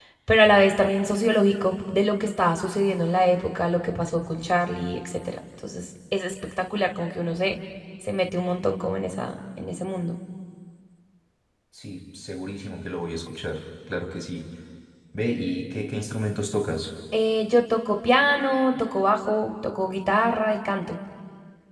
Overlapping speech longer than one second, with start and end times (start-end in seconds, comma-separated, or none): none